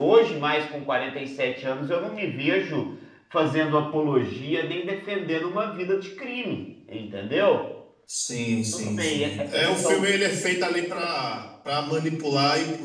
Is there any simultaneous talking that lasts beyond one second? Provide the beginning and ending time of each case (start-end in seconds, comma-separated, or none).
8.7-10.1